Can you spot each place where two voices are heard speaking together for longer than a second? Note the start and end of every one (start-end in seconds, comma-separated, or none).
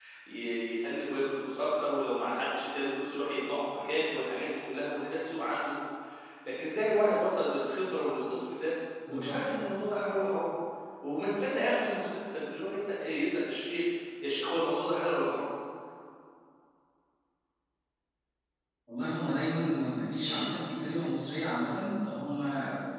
none